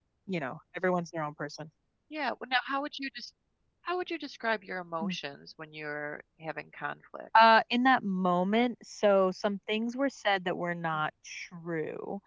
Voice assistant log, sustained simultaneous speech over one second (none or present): none